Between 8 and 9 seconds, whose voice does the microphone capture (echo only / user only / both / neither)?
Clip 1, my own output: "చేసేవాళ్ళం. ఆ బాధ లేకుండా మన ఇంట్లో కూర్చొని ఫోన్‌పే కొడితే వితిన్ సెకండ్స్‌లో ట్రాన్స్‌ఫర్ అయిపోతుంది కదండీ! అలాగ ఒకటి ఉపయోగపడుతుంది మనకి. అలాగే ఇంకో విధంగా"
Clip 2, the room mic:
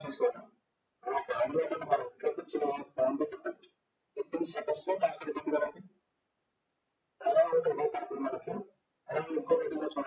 echo only